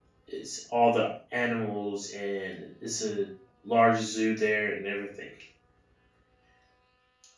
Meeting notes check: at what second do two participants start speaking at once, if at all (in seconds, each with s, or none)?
none